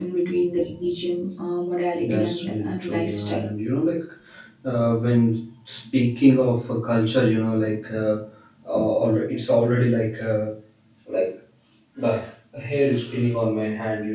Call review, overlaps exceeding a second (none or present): present